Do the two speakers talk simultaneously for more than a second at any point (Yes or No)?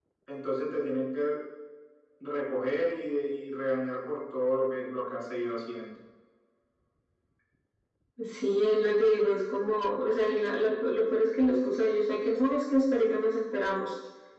No